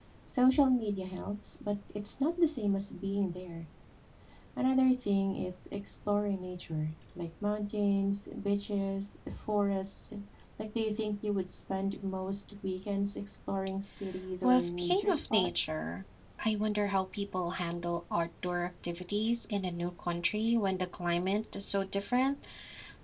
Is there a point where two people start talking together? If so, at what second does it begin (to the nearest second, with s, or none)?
14 s